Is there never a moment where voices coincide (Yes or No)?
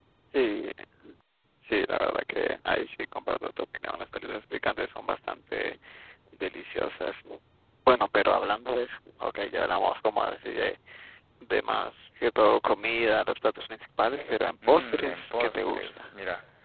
No